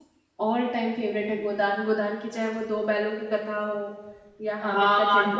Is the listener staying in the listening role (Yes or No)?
No